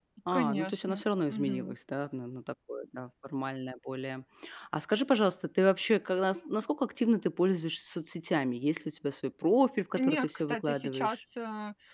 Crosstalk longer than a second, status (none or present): present